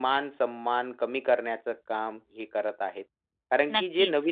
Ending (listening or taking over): listening